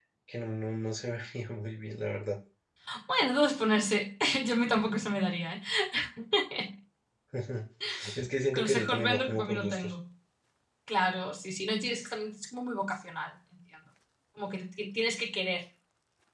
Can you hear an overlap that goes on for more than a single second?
Yes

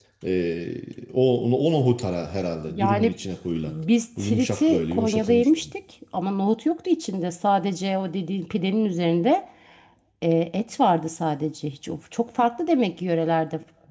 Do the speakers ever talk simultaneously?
Yes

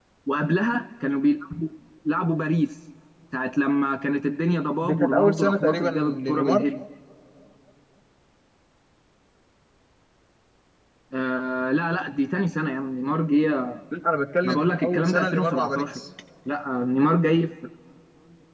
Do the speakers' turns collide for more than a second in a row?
Yes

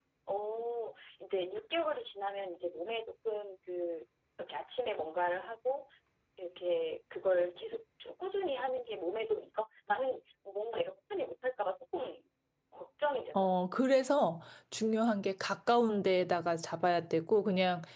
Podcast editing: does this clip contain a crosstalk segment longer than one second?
No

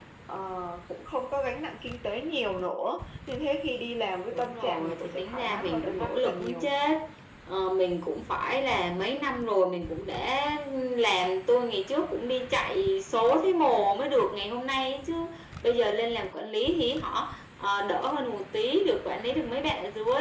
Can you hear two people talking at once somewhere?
Yes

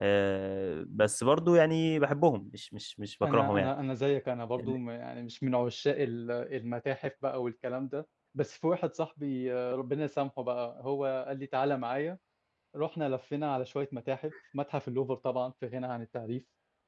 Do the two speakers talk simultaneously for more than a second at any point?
No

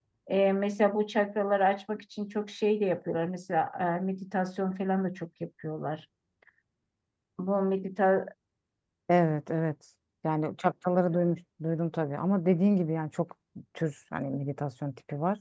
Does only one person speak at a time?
Yes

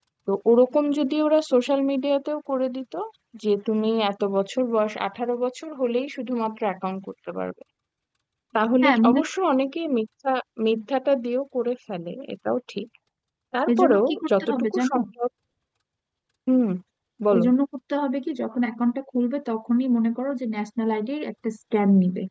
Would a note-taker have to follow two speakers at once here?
Yes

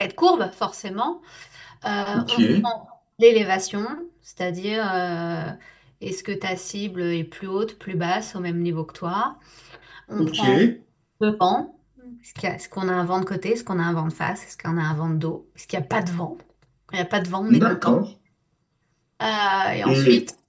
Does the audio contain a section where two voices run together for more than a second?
No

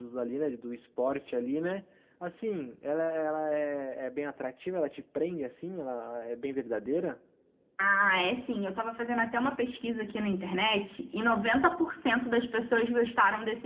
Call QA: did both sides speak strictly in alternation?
Yes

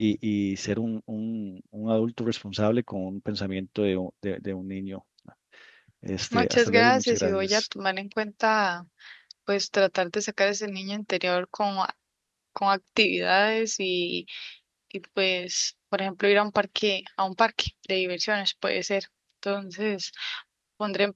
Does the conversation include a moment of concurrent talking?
Yes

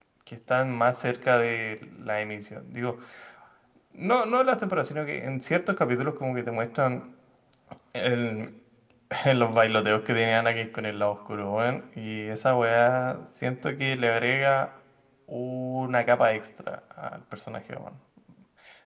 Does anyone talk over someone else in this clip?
No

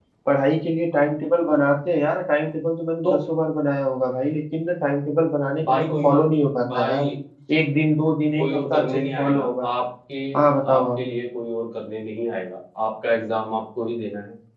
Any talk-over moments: Yes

